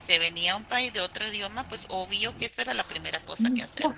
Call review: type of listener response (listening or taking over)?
taking over